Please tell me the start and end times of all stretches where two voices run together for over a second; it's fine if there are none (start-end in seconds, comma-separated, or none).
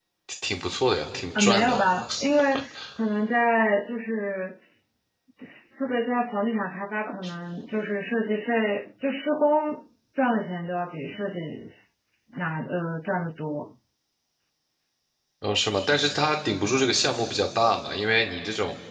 none